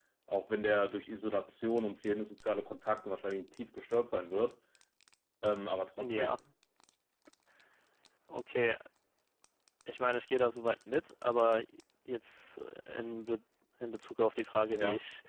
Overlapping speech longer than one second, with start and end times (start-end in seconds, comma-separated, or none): none